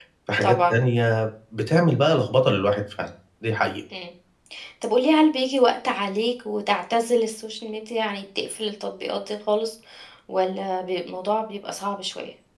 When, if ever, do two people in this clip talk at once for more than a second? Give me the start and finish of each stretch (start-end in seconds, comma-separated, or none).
none